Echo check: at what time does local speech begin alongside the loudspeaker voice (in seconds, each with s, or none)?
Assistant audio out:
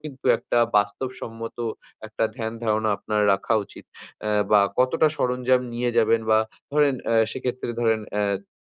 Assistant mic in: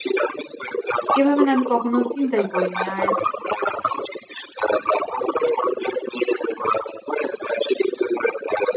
1.2 s